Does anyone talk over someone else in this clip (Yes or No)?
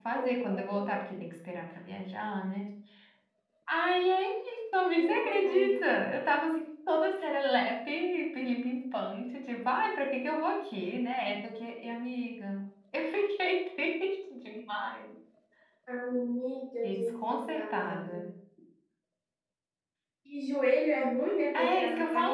Yes